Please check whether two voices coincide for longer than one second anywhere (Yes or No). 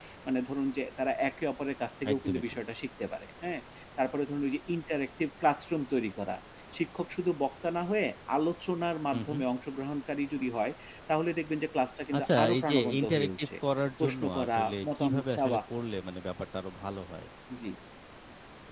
Yes